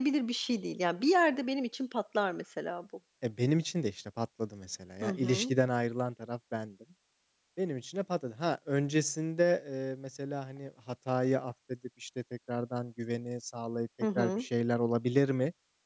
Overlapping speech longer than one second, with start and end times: none

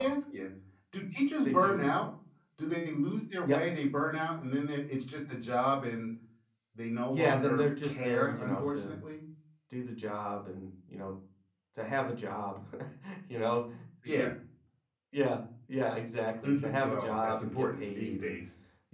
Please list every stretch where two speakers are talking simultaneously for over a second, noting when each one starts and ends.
7.1-9.0, 16.4-18.4

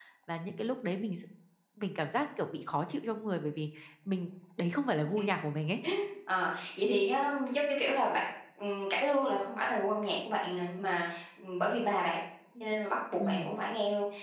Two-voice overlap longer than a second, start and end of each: none

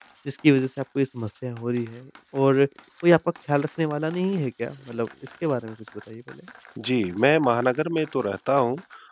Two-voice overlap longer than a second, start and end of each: none

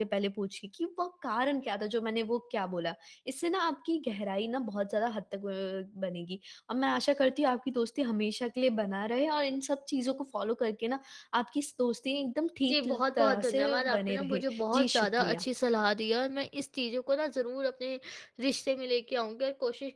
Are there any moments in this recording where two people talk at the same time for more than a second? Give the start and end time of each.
12.7-15.4

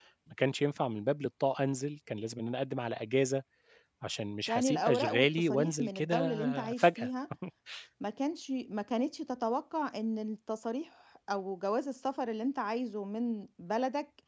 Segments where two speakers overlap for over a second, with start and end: 4.5-7.1

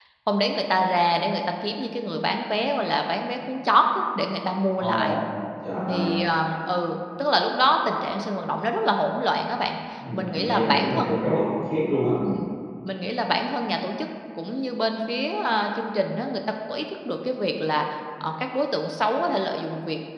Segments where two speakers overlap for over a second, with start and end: 10.1-11.3

